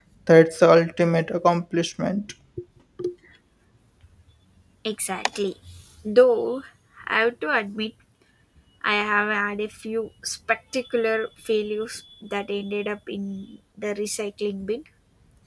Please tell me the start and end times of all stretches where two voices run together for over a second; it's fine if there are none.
none

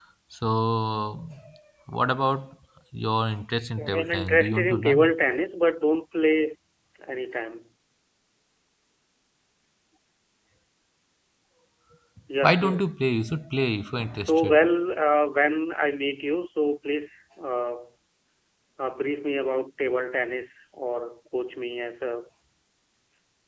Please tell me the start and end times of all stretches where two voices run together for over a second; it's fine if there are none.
3.8-5.1

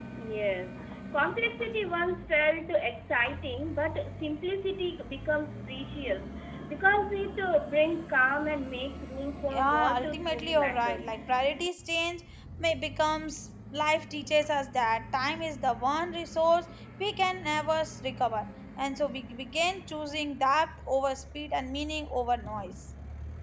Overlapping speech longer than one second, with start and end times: 9.5-11.2

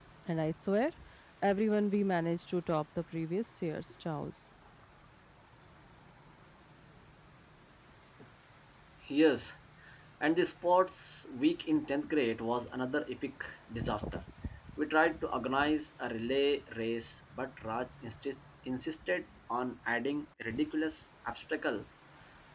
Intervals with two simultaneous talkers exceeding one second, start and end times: none

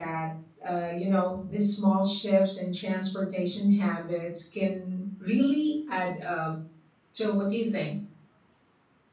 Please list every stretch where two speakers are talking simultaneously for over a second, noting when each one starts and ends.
none

